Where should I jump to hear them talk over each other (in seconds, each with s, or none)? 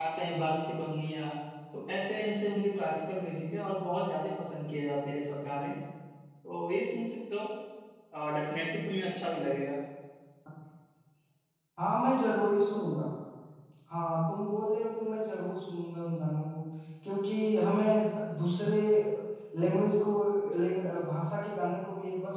none